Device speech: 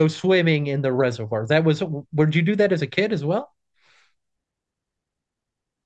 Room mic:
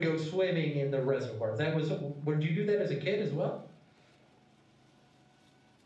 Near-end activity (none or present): none